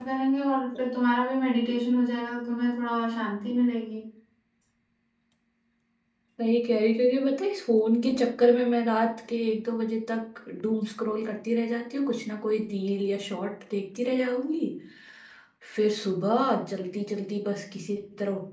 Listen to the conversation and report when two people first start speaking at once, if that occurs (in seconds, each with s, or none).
none